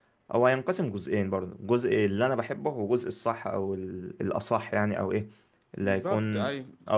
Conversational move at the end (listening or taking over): listening